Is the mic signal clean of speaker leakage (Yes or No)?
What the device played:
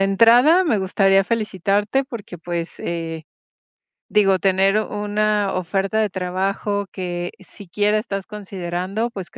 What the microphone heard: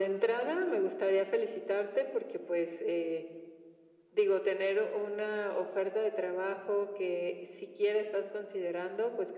No